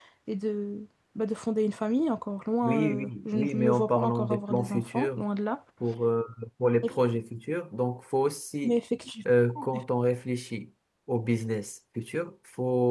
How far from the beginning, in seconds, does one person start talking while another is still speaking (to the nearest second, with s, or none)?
3 s